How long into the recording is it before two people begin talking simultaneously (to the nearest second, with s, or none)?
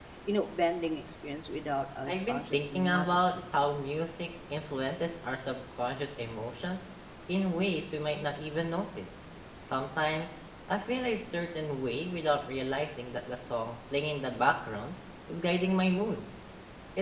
2 s